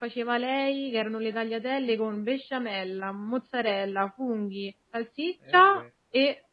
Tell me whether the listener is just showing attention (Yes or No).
Yes